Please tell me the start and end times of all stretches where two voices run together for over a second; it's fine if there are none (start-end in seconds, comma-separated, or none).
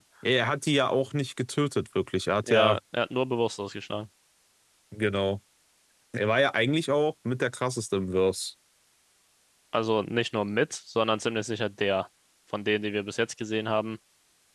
none